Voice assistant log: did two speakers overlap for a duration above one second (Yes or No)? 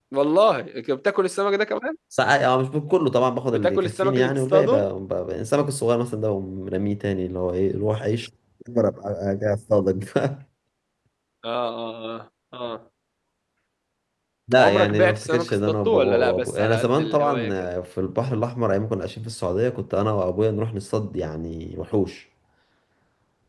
Yes